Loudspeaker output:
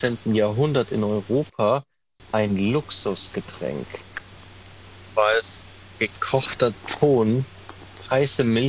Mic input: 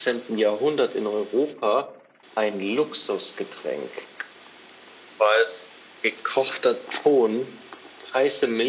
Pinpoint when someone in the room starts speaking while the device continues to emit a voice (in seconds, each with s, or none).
none